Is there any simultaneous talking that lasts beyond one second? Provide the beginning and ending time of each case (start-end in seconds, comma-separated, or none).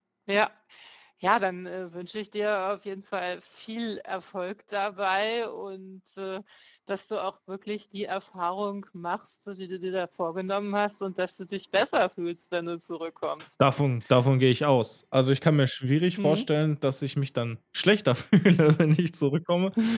none